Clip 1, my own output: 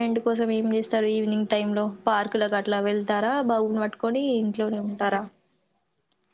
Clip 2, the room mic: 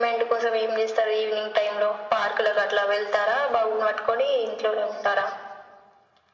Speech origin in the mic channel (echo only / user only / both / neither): echo only